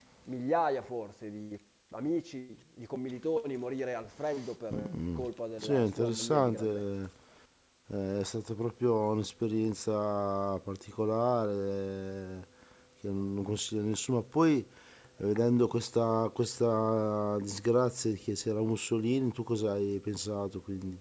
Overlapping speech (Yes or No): Yes